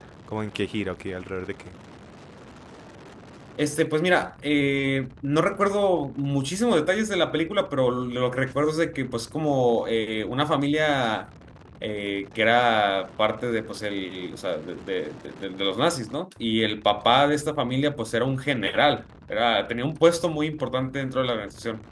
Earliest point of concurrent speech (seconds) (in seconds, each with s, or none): none